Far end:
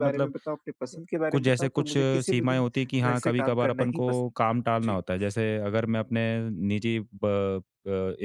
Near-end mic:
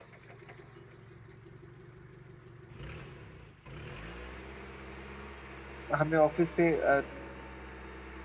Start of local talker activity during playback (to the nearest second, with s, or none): 6 s